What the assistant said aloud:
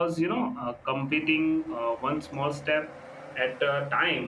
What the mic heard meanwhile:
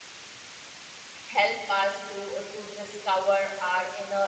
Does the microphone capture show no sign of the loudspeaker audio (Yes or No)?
Yes